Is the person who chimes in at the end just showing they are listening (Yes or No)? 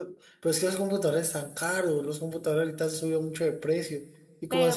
Yes